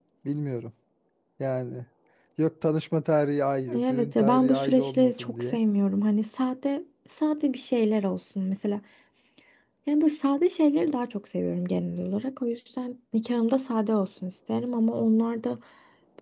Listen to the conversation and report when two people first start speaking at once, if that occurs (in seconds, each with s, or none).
3.7 s